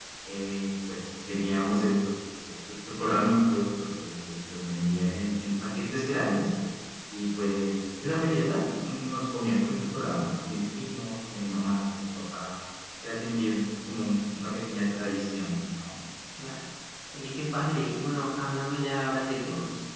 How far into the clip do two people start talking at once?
none

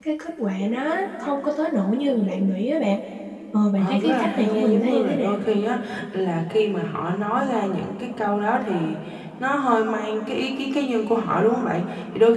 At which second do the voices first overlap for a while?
3.8 s

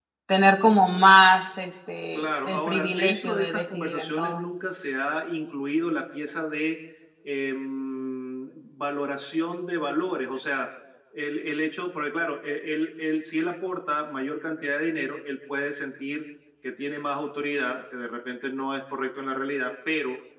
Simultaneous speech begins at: 2.1 s

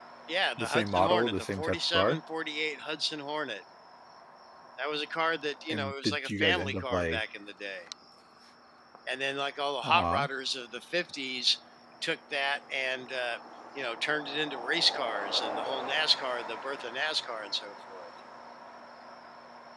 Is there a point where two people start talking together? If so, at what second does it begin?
0.6 s

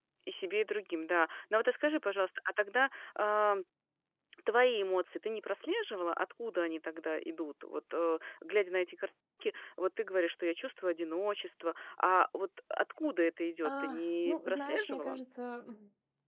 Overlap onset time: 13.6 s

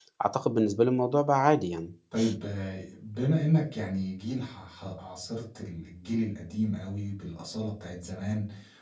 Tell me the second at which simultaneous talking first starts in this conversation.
none

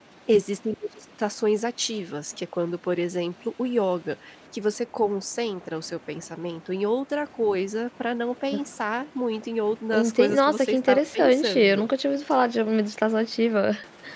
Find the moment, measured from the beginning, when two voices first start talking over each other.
9.9 s

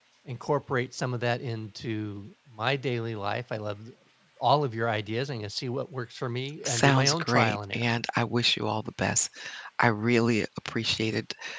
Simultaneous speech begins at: 6.7 s

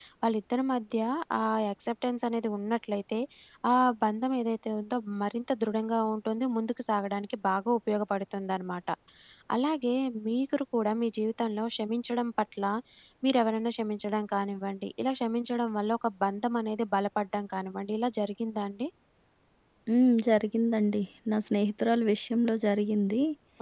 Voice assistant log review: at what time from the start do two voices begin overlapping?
none

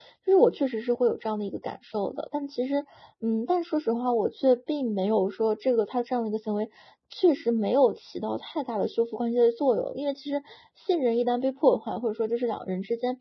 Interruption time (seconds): none

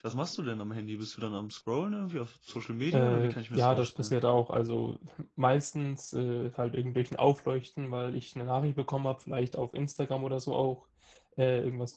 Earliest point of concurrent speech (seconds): 2.9 s

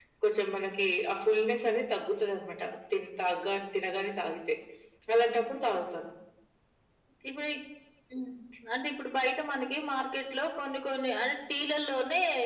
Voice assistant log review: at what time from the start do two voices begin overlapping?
none

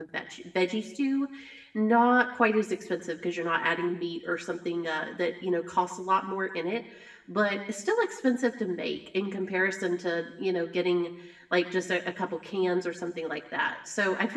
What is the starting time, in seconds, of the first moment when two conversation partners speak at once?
none

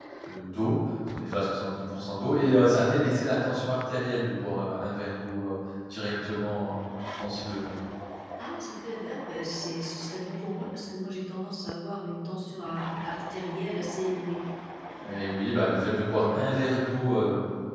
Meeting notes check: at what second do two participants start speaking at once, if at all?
none

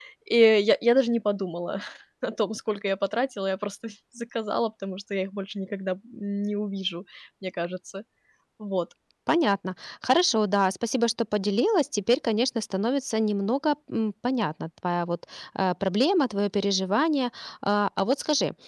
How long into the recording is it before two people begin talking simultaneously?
none

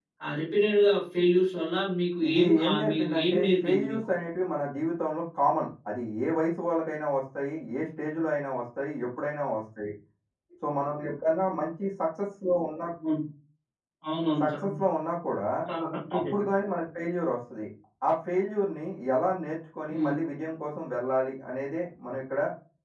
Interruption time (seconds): 2.3 s

